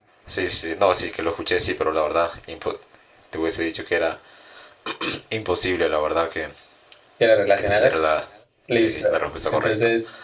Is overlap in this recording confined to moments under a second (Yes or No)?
Yes